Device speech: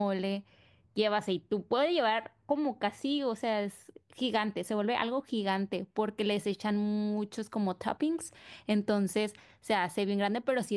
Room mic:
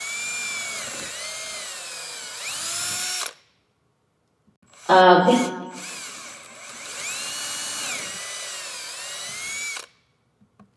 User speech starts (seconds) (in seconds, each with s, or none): 4.9 s